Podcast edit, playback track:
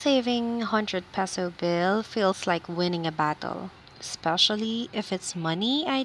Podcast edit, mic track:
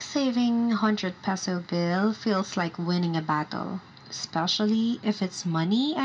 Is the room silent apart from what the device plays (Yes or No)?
Yes